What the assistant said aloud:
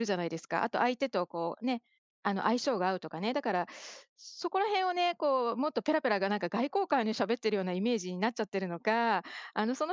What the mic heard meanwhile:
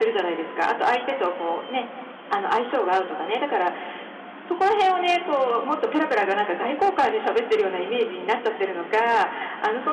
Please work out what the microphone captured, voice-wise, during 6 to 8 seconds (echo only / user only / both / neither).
echo only